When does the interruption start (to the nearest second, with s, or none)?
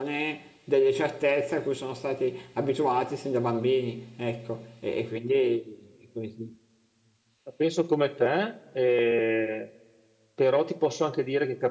none